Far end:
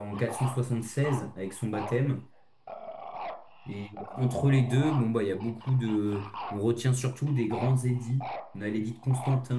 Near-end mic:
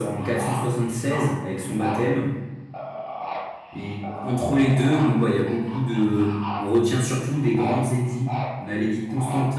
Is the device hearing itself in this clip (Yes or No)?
Yes